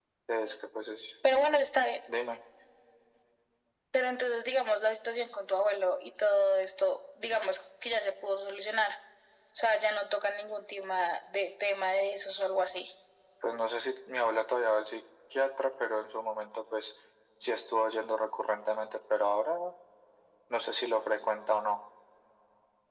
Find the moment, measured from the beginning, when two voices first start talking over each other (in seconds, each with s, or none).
none